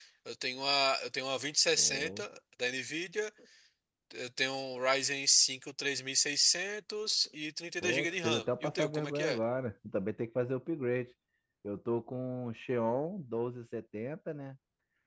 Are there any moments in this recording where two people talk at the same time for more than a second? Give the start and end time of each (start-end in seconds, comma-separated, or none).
7.8-9.4